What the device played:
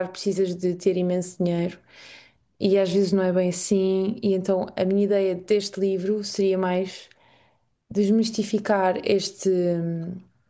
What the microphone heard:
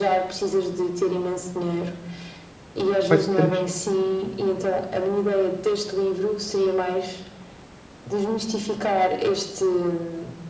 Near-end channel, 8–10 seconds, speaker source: echo only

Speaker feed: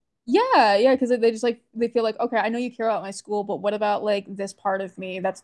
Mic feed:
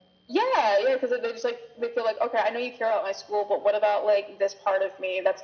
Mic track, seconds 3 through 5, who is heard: echo only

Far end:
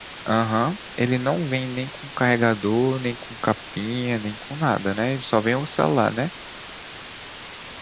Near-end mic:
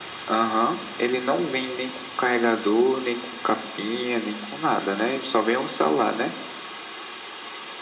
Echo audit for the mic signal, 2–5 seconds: echo only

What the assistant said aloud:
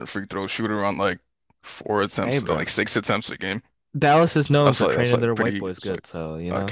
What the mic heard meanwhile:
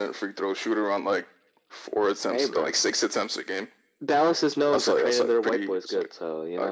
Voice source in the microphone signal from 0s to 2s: echo only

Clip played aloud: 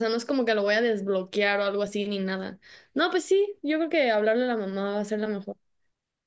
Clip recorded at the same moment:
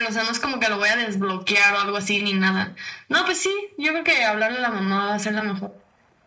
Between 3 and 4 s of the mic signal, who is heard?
echo only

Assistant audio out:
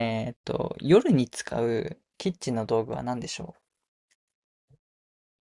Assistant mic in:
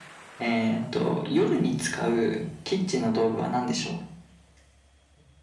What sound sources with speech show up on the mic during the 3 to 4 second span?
echo only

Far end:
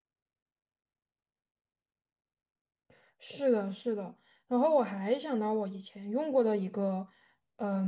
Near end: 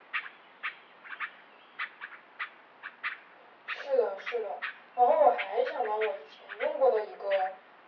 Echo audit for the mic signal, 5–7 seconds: echo only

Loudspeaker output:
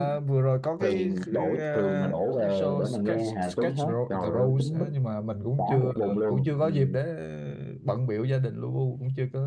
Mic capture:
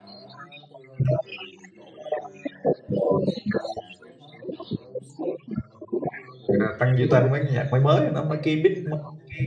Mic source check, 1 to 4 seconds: echo only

